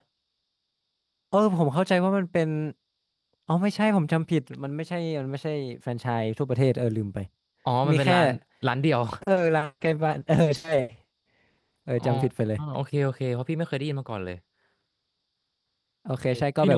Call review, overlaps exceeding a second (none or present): none